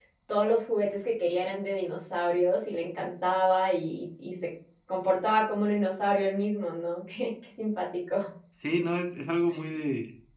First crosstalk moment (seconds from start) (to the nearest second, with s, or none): none